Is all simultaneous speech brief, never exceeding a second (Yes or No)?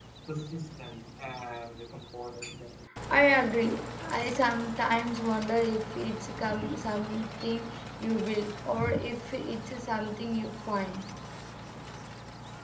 Yes